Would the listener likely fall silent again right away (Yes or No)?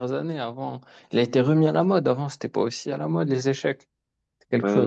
No